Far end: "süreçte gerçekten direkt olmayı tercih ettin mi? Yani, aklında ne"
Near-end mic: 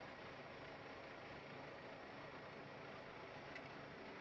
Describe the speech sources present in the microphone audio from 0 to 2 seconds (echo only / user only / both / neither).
neither